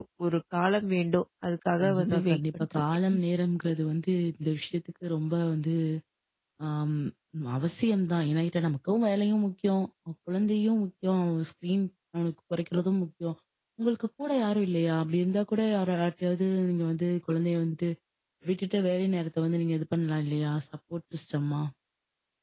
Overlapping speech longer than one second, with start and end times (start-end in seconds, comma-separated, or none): 1.8-3.2